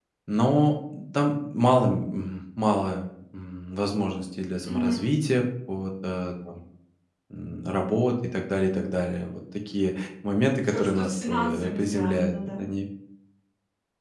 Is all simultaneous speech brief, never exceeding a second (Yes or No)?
No